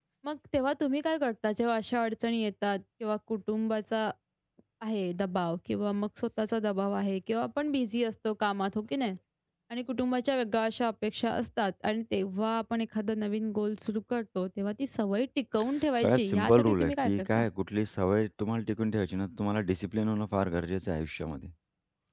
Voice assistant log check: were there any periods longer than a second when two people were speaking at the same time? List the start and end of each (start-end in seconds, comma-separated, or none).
16.0-17.4